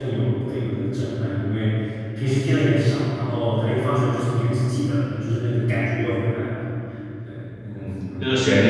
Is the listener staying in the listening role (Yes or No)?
No